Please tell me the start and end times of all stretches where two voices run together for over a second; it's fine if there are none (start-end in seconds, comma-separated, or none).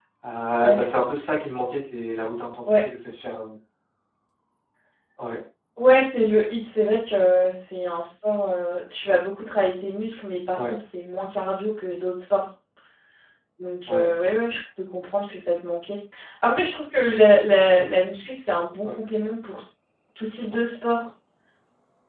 none